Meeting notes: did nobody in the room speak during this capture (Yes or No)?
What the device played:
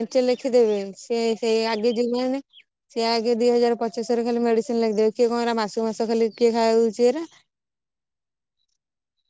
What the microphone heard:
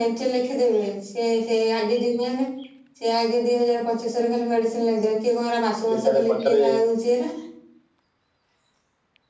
No